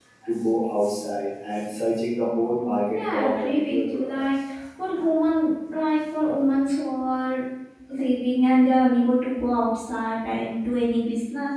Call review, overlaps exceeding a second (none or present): present